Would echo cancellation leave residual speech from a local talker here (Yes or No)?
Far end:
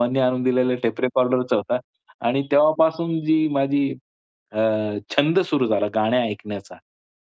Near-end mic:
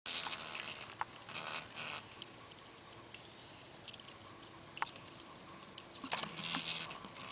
No